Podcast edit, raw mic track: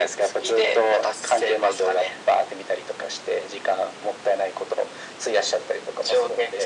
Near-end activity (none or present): none